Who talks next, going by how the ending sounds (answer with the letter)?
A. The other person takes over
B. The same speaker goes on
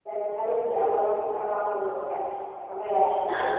B